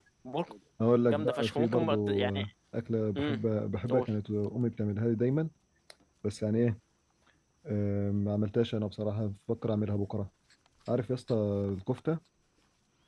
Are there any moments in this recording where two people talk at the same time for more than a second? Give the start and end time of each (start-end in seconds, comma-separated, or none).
1.1-2.4